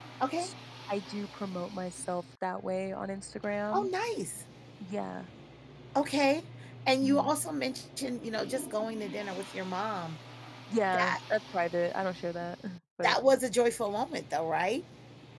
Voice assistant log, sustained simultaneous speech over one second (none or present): none